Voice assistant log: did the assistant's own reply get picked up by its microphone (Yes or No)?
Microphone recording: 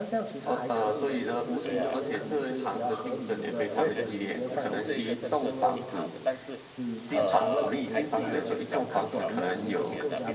Yes